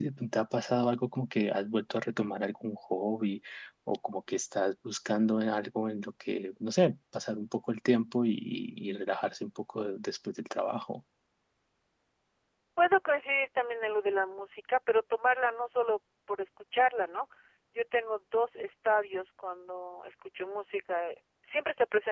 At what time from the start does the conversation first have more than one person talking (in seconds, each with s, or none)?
none